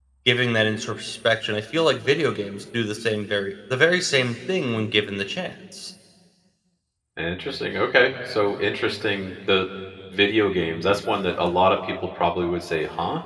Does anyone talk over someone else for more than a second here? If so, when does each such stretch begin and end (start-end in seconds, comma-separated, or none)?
none